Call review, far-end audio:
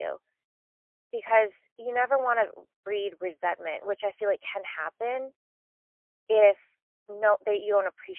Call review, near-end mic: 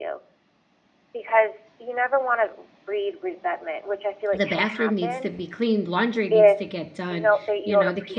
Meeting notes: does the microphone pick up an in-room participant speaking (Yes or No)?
Yes